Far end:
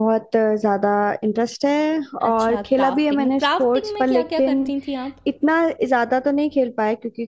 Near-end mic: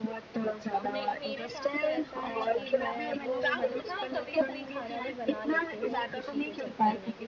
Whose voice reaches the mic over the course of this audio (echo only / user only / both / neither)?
both